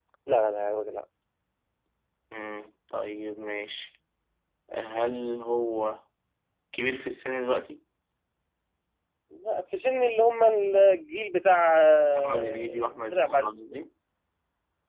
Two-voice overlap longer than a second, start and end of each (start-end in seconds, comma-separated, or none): 12.1-13.5